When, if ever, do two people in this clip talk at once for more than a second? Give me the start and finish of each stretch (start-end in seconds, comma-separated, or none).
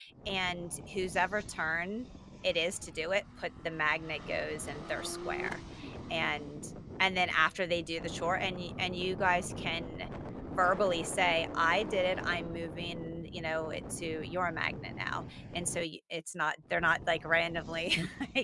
none